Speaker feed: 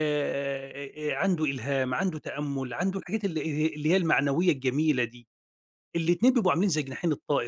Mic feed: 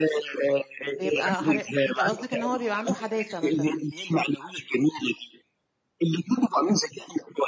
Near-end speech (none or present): present